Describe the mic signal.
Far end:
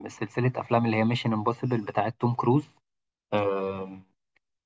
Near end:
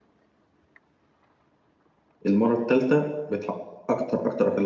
user only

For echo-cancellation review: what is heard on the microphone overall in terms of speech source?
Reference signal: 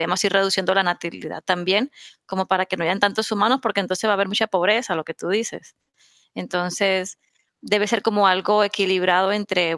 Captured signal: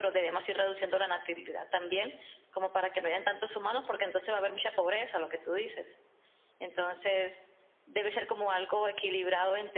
echo only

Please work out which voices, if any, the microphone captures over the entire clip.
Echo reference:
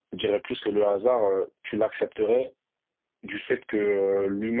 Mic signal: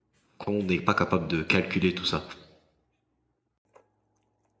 user only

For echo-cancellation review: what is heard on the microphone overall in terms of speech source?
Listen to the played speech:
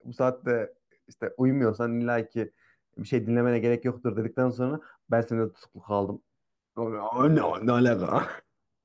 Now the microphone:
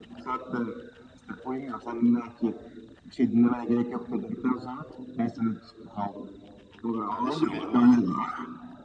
both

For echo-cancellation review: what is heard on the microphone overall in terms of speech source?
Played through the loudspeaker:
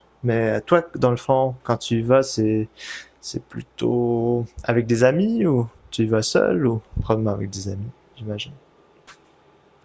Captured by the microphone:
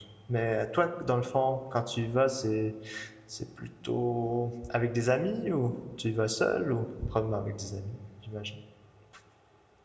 echo only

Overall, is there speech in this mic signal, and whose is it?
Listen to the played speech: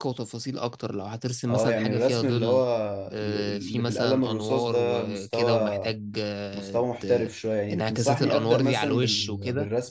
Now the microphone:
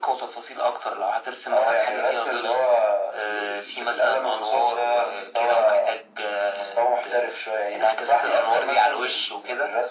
echo only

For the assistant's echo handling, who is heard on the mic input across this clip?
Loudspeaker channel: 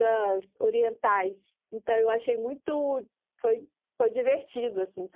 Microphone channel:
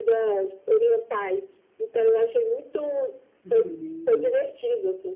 both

